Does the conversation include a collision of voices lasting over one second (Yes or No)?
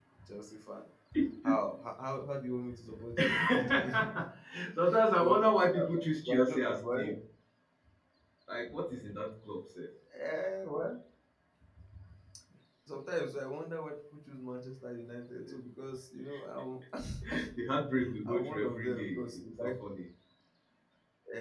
Yes